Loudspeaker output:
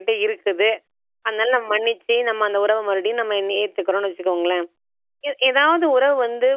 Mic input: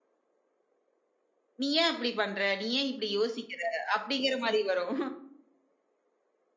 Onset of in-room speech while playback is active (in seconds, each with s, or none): 1.6 s